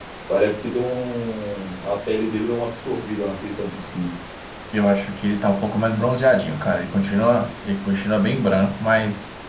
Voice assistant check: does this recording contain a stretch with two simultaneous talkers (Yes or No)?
No